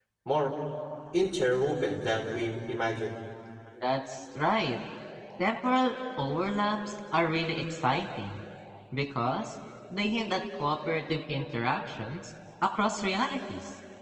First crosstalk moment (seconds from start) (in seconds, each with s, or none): none